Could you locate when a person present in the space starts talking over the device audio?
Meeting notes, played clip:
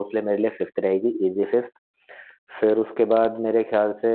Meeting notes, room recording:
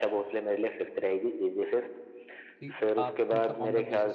2.6 s

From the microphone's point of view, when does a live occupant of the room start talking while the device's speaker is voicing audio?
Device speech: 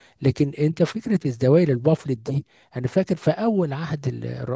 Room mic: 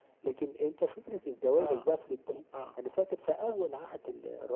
1.6 s

